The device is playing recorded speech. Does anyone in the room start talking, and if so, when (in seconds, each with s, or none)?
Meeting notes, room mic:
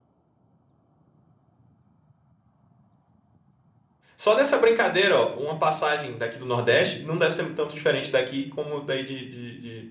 4.2 s